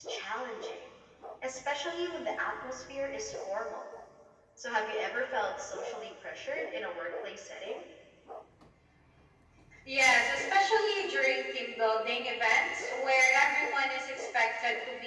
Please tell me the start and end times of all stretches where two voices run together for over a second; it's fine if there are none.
none

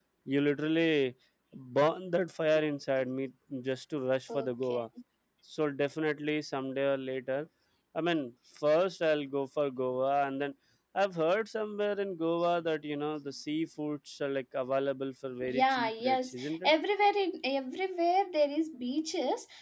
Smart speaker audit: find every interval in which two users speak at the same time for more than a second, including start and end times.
15.4-16.7

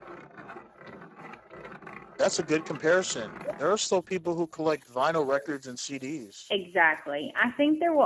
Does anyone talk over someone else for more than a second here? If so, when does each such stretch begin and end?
none

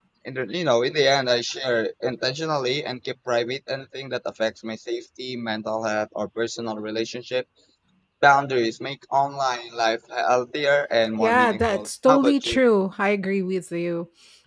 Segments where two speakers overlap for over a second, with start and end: 11.2-12.6

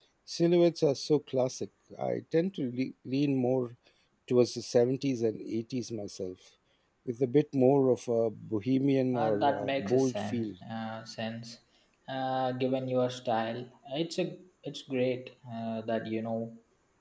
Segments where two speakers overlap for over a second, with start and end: 9.1-10.5

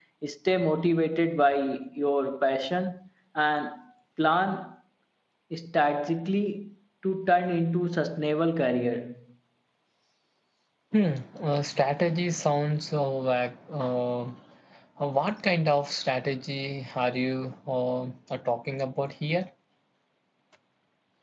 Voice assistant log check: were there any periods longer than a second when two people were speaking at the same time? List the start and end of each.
none

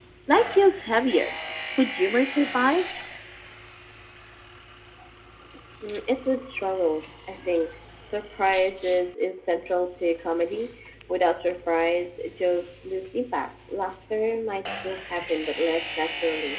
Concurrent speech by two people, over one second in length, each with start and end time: none

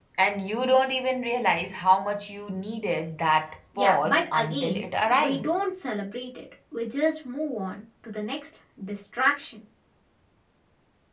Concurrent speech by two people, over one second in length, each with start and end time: 3.8-5.6

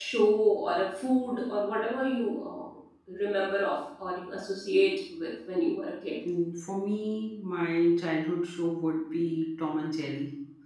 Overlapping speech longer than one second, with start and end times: none

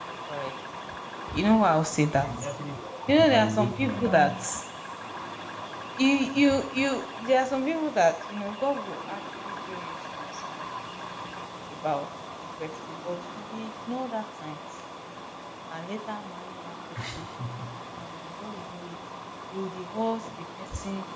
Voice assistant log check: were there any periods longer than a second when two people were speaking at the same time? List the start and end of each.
3.1-4.3

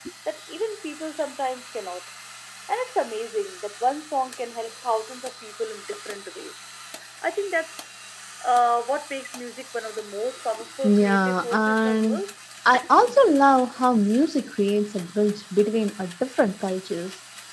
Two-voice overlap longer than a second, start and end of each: 10.8-12.2

